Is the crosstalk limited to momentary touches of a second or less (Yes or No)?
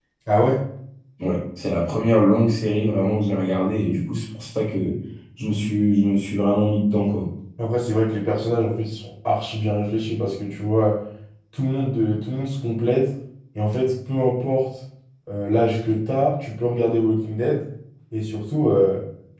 Yes